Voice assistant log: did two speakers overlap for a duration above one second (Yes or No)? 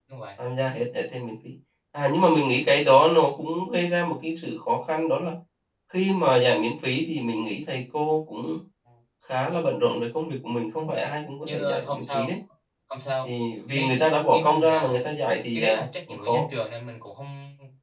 Yes